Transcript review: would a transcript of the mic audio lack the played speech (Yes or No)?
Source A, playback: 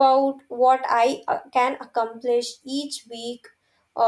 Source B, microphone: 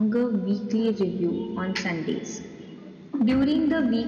Yes